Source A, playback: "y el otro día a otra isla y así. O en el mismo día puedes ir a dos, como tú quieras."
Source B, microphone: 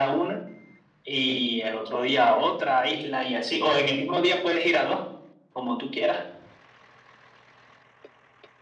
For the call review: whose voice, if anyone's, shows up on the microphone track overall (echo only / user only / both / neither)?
echo only